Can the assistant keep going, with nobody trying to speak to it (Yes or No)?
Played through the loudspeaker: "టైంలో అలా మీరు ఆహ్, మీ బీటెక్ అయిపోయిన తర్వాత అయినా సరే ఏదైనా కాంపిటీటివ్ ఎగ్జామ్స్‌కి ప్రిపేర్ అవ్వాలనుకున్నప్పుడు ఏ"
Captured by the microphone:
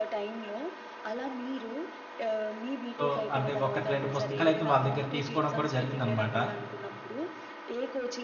No